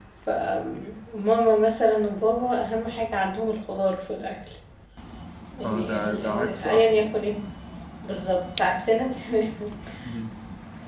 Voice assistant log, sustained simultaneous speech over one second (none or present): present